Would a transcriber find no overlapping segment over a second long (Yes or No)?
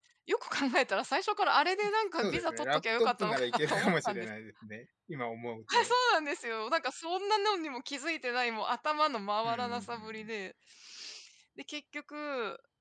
No